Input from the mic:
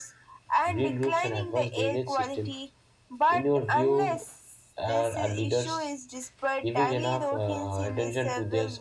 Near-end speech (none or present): present